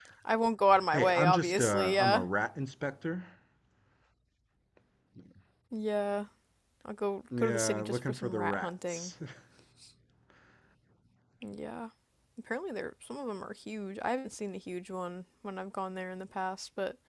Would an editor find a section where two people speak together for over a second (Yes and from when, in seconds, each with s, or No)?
Yes, from 0.9 s